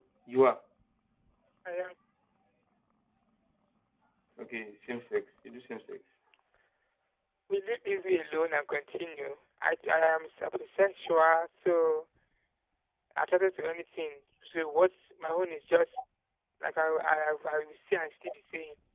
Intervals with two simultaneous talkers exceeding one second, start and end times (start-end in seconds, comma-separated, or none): none